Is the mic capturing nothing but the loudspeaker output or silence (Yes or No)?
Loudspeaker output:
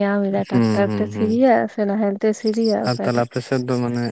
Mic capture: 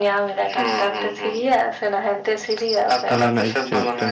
No